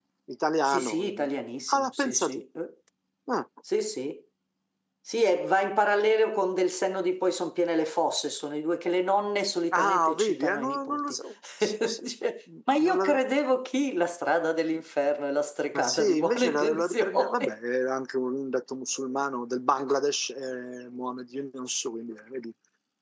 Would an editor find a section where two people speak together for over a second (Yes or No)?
Yes